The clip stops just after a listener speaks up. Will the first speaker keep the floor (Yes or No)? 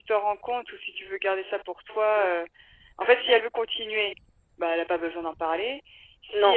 Yes